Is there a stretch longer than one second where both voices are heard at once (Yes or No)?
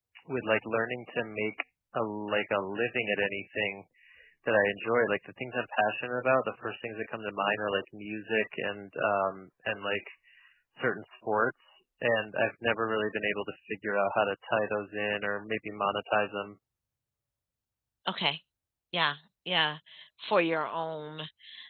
No